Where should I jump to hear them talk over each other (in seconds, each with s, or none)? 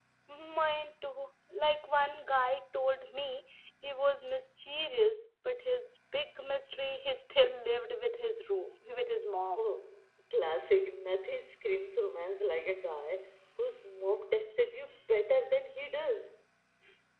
none